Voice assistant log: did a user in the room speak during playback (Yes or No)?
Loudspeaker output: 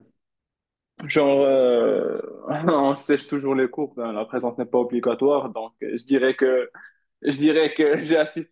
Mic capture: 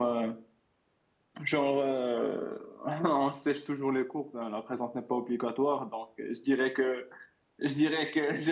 No